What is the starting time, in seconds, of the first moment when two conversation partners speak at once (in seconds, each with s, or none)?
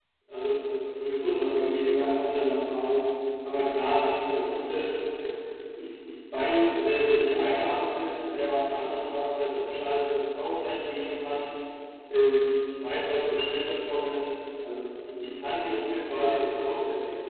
none